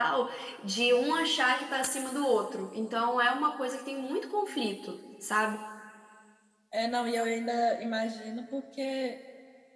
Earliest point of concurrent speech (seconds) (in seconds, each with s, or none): none